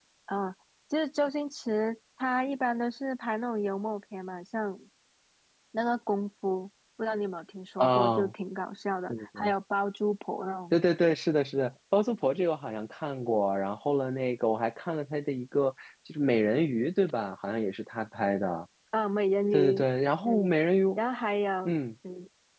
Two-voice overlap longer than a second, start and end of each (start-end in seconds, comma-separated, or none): none